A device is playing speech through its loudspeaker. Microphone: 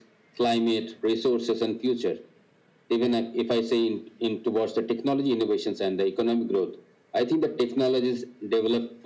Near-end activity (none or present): none